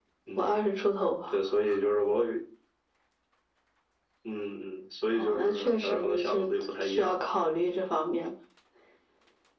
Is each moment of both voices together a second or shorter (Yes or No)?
No